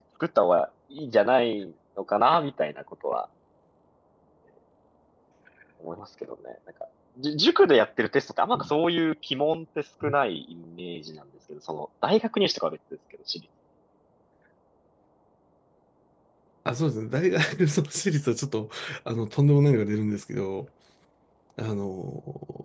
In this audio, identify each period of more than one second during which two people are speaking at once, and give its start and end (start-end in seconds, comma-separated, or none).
none